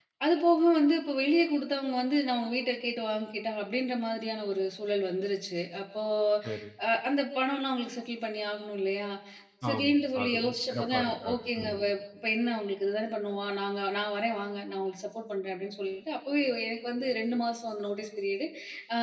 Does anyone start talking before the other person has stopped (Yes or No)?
Yes